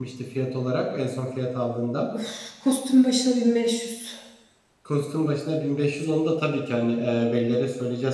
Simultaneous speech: No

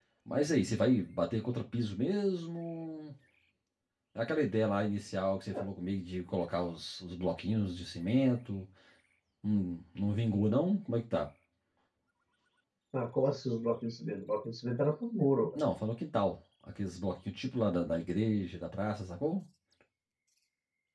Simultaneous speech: No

